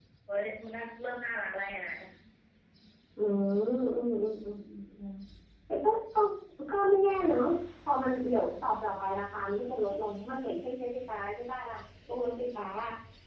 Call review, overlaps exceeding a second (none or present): none